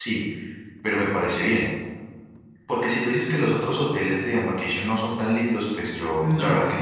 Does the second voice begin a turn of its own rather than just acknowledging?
No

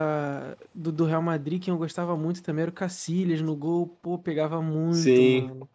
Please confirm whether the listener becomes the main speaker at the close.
Yes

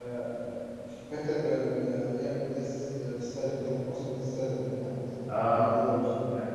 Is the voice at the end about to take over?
Yes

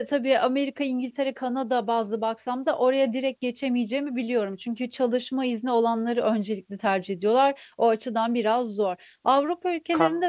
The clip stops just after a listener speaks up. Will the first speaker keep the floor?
Yes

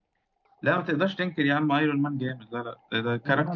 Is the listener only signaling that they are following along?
Yes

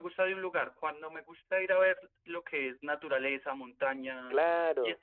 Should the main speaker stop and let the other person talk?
No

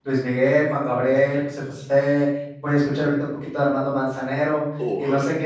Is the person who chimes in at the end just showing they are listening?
Yes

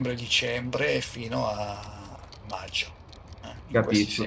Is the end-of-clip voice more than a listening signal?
Yes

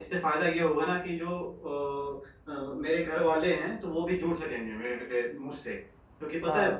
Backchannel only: Yes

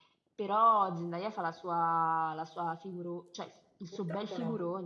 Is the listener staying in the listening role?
No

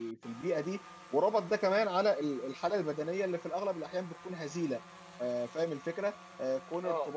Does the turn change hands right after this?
No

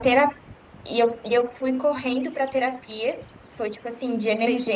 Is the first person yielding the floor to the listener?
Yes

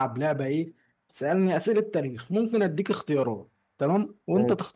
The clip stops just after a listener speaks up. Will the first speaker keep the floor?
Yes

